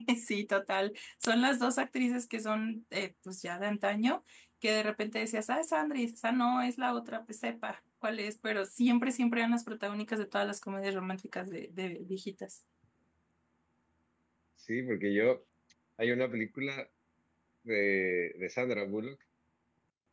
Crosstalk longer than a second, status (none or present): none